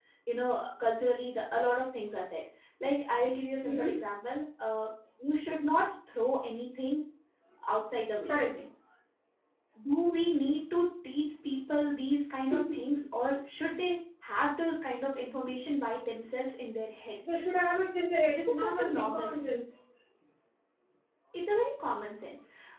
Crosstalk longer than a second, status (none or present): present